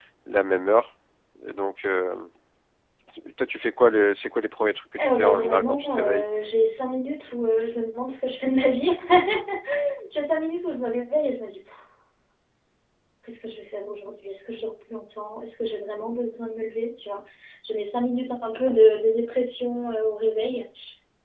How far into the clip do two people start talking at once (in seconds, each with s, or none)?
5.0 s